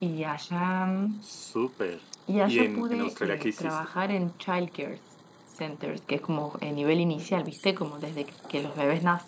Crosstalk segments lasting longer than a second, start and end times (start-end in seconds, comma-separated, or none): 2.5-3.8